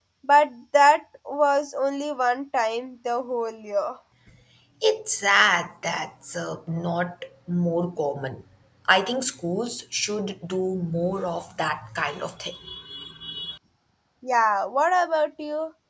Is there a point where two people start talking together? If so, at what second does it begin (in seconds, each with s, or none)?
none